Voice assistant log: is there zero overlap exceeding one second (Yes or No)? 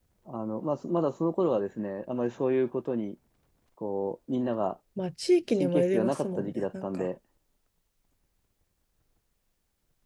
No